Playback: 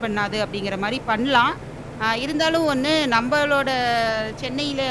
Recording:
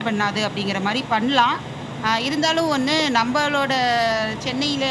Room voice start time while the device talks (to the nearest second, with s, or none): none